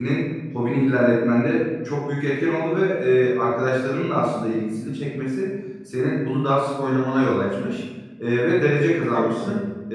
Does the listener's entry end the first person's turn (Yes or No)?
No